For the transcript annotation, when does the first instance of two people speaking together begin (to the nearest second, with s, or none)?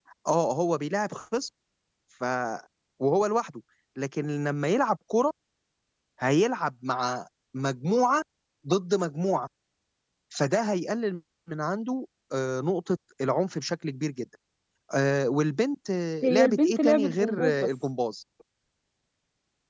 16 s